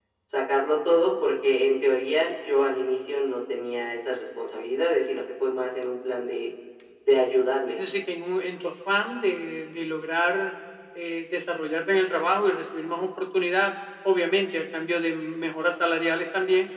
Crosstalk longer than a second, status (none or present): none